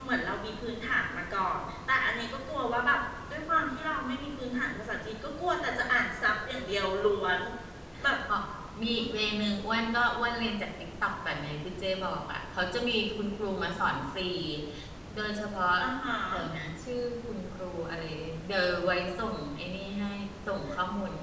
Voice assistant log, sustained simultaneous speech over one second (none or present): none